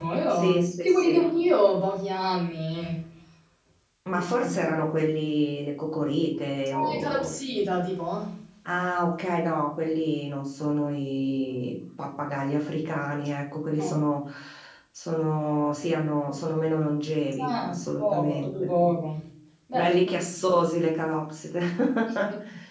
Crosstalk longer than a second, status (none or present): present